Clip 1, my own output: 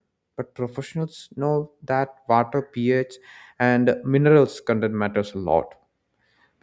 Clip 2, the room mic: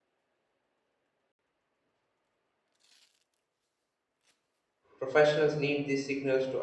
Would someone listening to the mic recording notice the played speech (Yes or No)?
No